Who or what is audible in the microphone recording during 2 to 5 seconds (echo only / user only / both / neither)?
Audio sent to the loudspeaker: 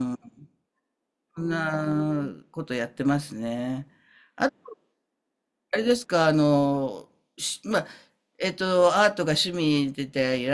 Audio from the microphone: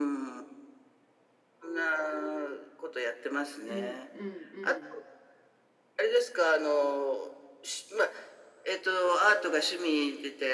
both